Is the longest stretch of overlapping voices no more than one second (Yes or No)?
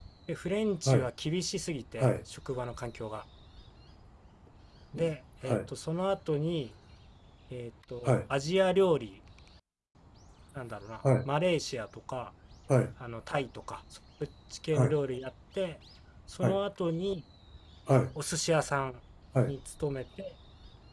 Yes